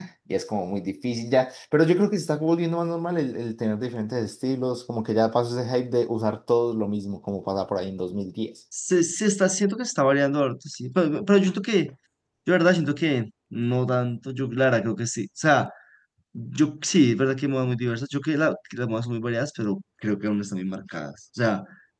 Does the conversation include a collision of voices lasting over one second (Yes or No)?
No